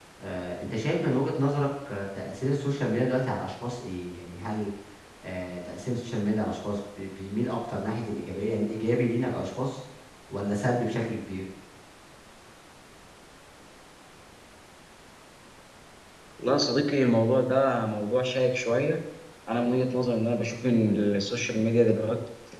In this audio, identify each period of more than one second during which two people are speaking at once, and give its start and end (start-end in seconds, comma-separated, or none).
none